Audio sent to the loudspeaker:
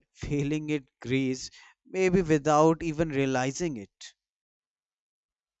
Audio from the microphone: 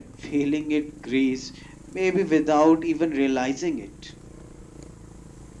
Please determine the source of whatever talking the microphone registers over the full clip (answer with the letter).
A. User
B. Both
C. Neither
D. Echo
D